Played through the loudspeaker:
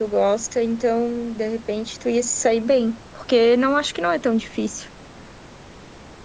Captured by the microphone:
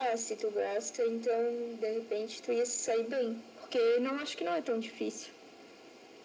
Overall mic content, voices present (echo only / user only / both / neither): echo only